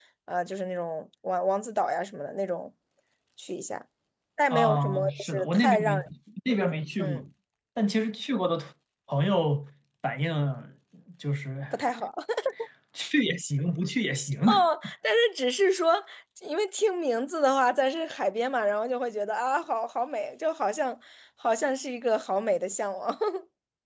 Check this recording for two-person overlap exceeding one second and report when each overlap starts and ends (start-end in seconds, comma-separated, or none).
4.5-6.0